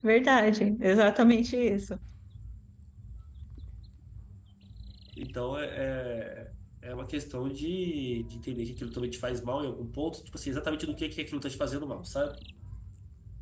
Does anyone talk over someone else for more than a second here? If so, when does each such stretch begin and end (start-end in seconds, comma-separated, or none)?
none